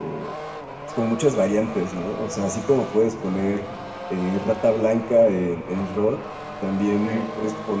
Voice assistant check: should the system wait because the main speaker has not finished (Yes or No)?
Yes